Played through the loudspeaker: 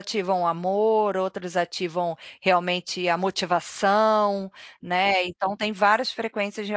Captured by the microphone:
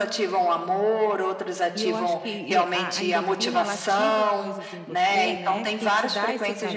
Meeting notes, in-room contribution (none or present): present